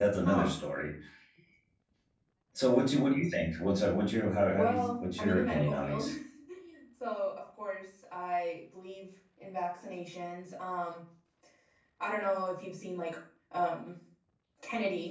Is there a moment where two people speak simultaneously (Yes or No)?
Yes